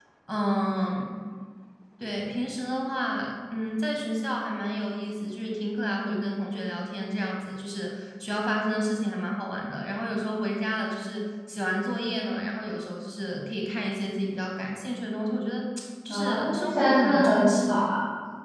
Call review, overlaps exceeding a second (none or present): present